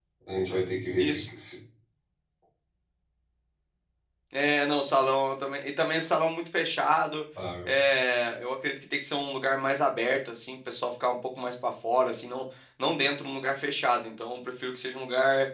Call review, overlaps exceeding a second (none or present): none